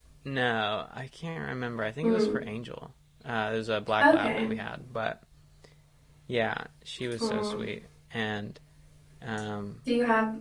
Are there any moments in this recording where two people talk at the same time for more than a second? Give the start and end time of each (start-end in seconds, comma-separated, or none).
none